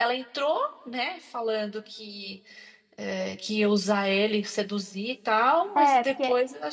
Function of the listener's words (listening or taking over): taking over